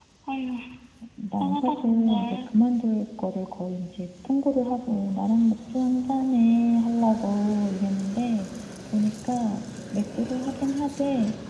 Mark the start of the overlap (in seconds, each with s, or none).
1.3 s